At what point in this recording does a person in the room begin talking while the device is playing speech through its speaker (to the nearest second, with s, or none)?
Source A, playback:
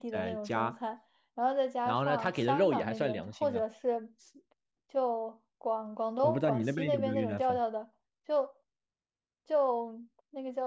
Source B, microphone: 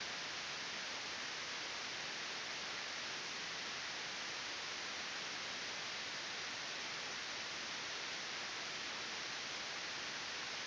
none